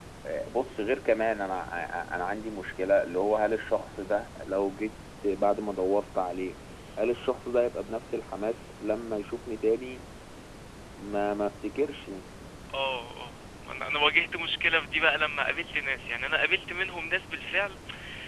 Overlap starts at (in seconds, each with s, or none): none